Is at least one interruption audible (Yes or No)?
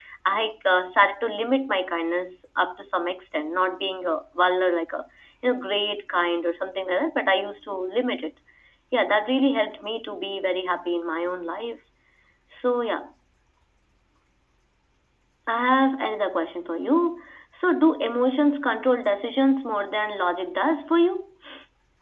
No